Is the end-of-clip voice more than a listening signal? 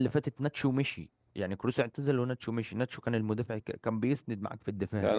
Yes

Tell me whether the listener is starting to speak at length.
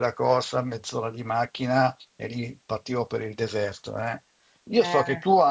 No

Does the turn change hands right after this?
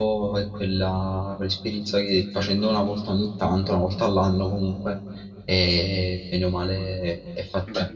Yes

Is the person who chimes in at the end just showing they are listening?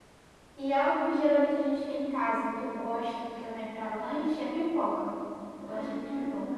No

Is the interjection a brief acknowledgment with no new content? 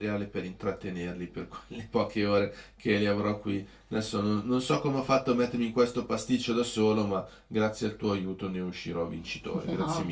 No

